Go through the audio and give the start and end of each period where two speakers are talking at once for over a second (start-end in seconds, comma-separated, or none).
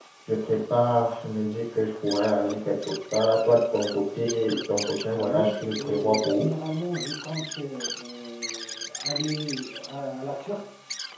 5.2-6.5